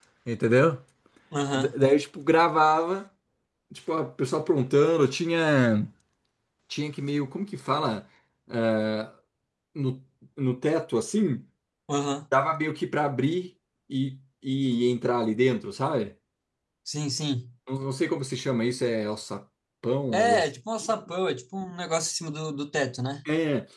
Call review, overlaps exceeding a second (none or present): none